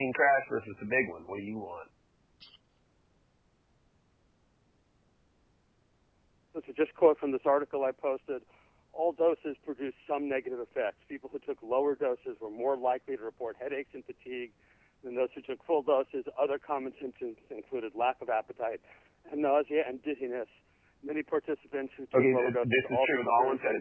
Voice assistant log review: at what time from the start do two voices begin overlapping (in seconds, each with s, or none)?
22.1 s